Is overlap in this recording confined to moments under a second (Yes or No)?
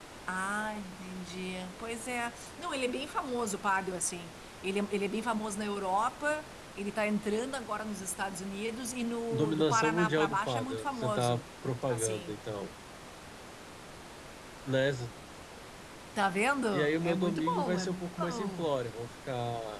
No